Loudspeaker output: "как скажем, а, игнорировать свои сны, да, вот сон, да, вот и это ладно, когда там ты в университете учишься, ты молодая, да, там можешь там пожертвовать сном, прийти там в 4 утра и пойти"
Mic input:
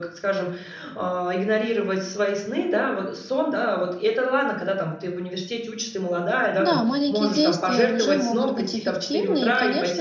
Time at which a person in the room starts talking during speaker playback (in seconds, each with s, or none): 6.6 s